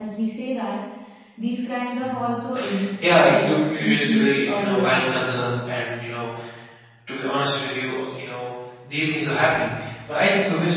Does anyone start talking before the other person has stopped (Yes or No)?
Yes